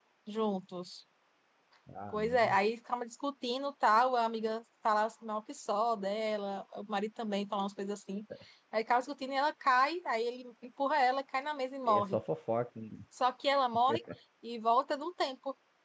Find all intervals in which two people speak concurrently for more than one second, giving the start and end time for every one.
none

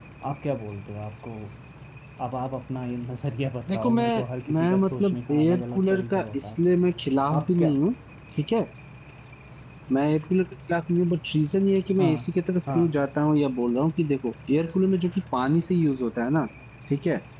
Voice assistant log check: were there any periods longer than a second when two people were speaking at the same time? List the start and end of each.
3.7-6.6

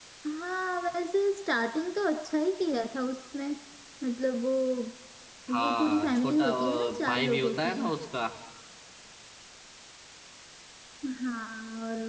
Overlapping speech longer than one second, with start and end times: 5.5-7.7

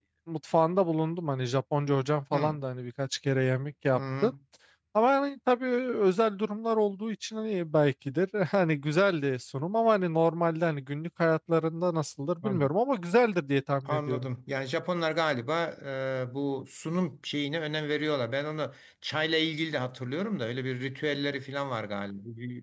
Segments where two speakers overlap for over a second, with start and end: none

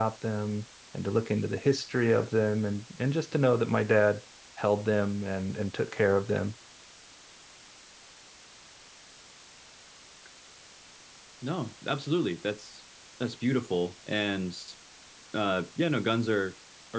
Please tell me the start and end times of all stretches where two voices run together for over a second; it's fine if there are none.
none

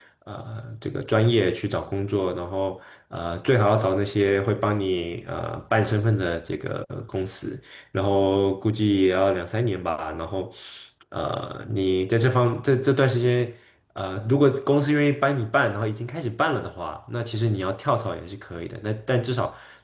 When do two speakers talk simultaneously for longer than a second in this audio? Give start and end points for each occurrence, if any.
none

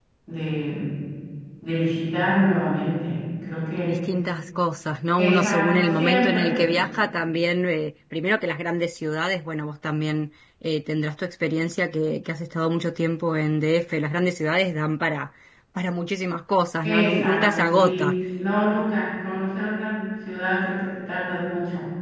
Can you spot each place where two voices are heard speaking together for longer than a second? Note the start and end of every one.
5.2-6.6, 16.8-18.1

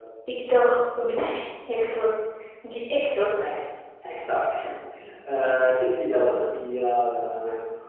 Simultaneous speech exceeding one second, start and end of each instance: none

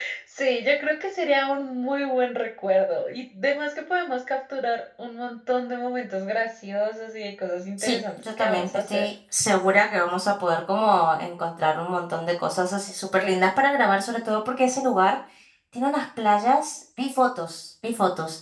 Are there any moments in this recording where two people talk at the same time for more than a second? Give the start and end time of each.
7.8-9.1

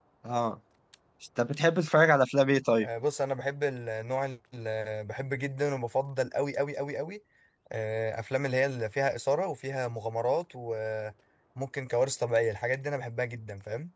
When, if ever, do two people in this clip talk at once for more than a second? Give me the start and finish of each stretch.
none

